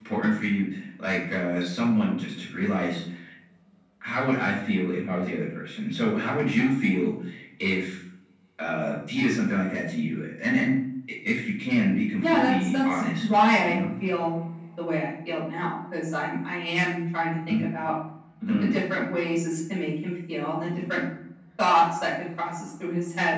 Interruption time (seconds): 12.2 s

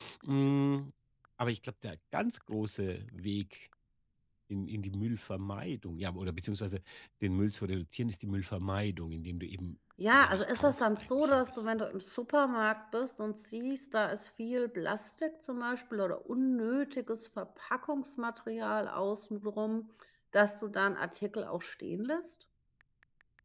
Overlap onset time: 10.0 s

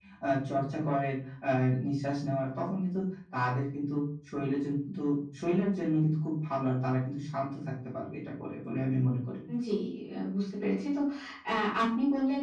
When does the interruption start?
none

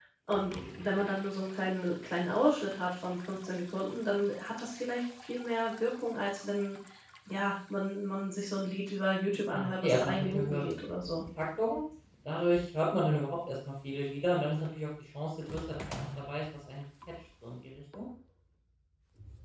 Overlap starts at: 9.4 s

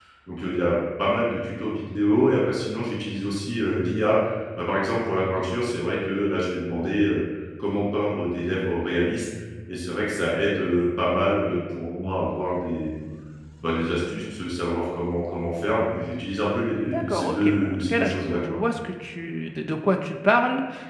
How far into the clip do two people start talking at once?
16.9 s

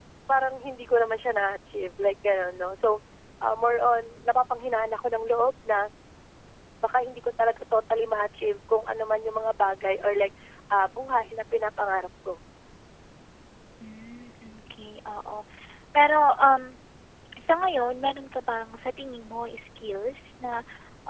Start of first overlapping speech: none

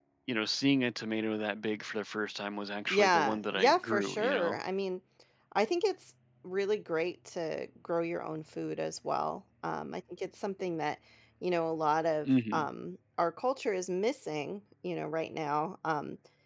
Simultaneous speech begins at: 2.9 s

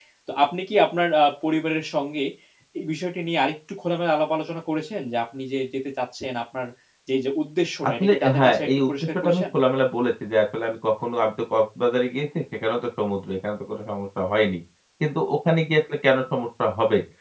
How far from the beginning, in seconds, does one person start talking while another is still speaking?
7.9 s

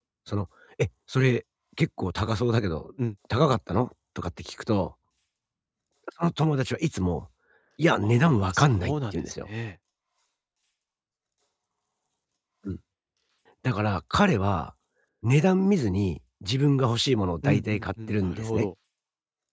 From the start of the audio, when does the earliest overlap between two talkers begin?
8.0 s

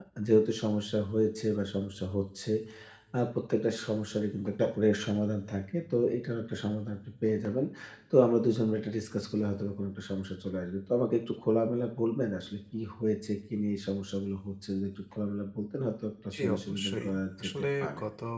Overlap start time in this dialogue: 16.3 s

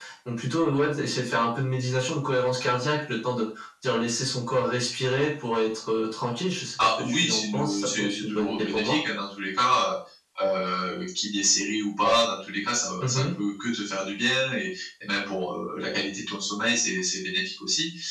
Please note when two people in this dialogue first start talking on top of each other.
6.8 s

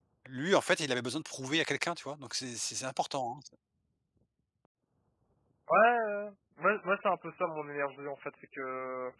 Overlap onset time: none

